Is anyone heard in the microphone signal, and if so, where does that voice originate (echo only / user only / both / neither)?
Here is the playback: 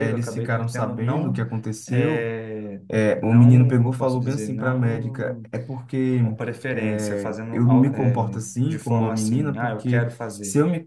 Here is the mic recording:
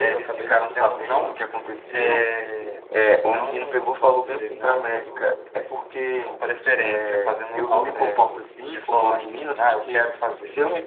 echo only